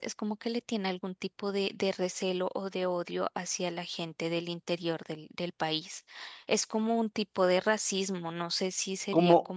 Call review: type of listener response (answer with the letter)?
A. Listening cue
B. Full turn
B